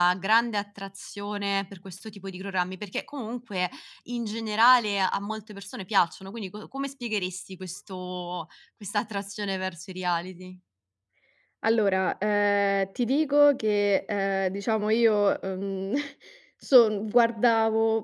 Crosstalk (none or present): none